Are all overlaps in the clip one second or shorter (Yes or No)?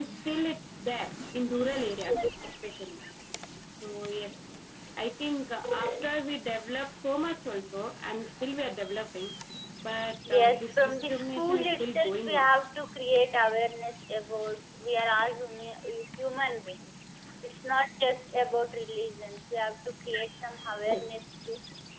No